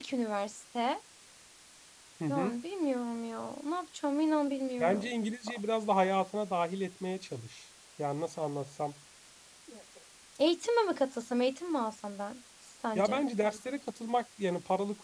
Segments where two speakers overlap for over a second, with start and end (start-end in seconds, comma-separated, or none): none